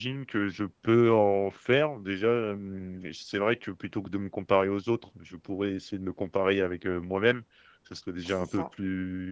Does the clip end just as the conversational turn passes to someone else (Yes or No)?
No